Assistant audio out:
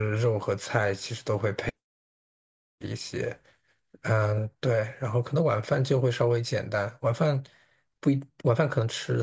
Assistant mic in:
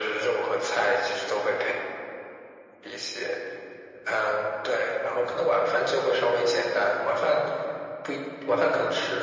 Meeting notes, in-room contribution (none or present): none